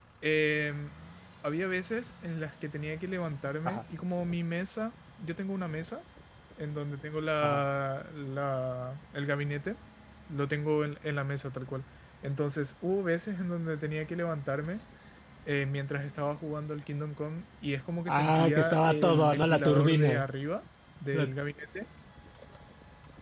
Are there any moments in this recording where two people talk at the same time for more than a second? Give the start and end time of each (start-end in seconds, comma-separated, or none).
18.1-20.2